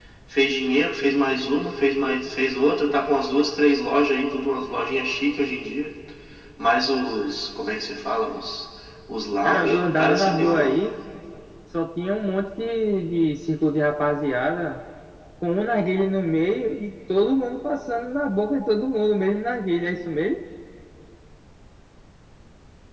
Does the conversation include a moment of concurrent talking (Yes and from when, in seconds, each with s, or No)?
Yes, from 9.4 s